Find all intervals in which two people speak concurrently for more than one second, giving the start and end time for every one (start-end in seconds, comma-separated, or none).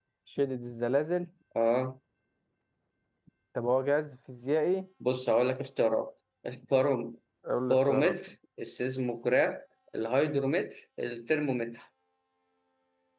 none